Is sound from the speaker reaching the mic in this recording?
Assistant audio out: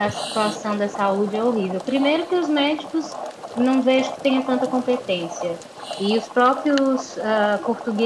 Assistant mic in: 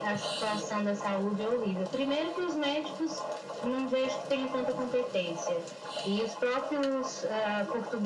Yes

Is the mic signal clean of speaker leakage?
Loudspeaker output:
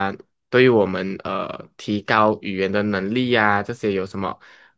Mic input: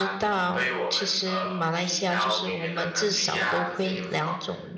No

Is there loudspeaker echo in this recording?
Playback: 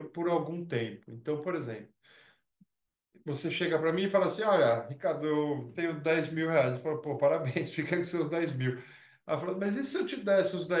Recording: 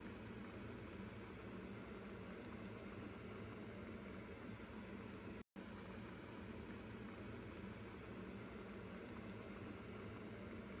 No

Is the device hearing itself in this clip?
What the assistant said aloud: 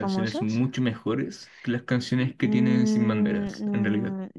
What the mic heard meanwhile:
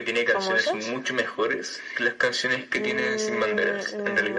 Yes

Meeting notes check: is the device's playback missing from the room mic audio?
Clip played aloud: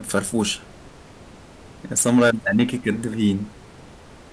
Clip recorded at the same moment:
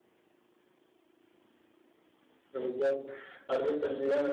Yes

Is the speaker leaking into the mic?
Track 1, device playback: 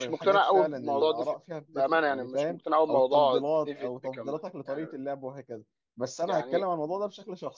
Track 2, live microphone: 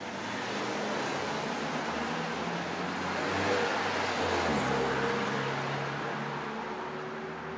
No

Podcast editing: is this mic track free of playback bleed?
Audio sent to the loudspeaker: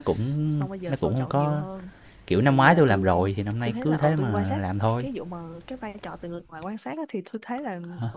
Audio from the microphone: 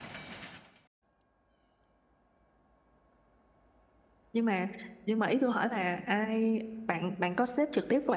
Yes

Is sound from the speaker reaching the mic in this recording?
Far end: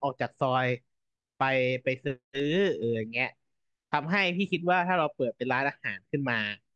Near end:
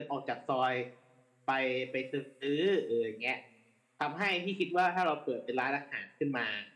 Yes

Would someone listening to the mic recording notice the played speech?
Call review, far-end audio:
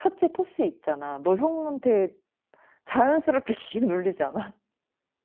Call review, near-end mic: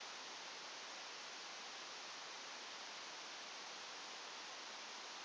No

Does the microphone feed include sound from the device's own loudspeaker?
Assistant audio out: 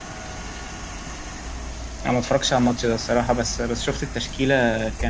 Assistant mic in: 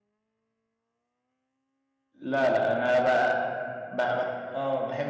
No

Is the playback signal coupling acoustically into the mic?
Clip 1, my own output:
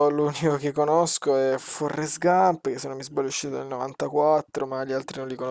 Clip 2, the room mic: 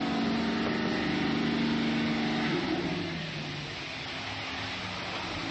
No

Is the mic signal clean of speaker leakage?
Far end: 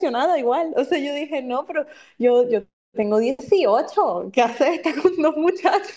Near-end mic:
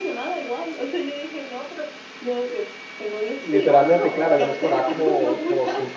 No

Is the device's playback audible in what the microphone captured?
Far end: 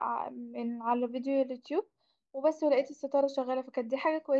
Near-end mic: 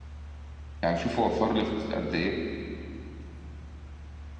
No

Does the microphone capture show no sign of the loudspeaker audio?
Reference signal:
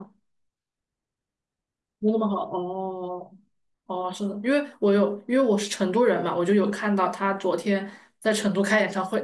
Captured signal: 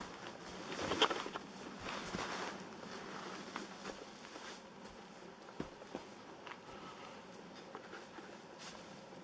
Yes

